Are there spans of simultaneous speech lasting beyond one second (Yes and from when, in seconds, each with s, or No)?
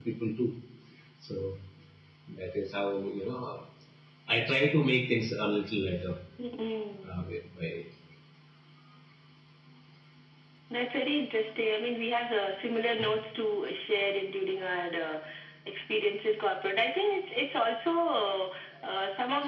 No